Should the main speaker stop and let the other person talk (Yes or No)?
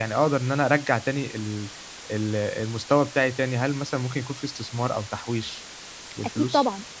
Yes